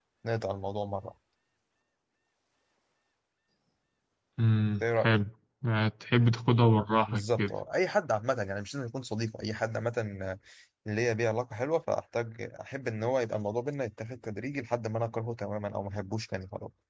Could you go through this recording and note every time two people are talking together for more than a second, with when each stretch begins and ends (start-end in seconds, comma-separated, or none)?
none